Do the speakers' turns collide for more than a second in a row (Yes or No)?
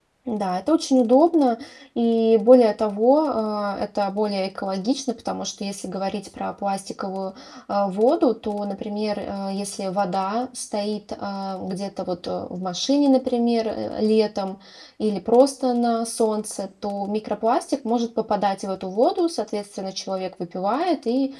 No